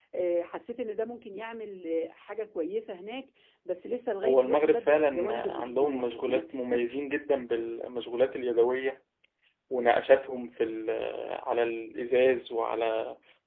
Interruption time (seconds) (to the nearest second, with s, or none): 4 s